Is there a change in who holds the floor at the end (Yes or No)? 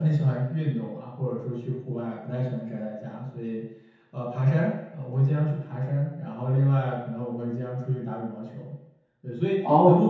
No